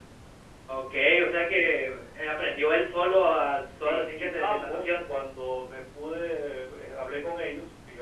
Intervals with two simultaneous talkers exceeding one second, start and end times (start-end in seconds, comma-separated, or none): 3.1-4.9